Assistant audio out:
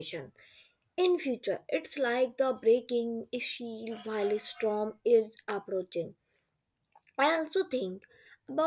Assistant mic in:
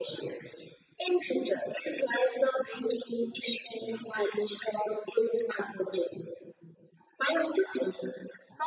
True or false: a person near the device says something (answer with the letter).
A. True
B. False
B